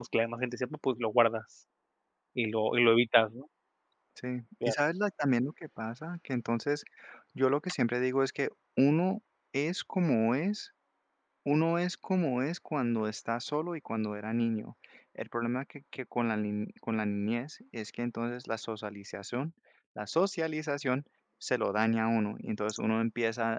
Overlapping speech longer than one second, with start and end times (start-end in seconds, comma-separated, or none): none